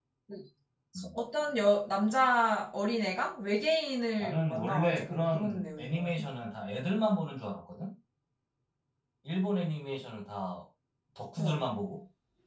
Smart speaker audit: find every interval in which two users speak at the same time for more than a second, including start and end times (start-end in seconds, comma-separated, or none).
4.2-6.2